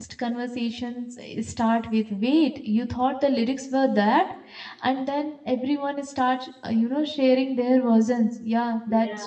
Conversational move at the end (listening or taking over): listening